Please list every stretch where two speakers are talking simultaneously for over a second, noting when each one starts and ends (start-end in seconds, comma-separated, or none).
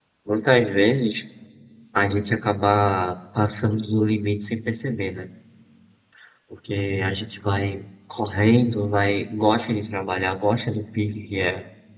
none